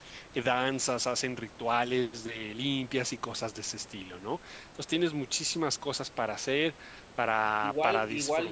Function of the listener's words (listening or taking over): taking over